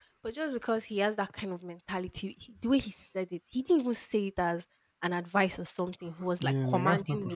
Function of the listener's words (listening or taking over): taking over